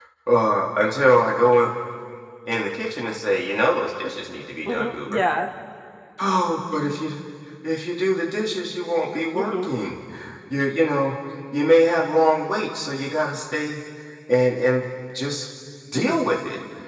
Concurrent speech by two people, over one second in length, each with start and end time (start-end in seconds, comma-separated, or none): none